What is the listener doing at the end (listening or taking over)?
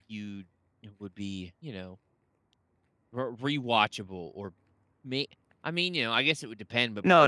taking over